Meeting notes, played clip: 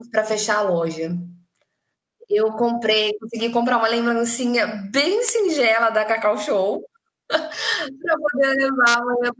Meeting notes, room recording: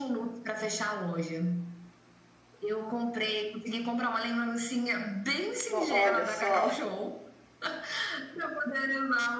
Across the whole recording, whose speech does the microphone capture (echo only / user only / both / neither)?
both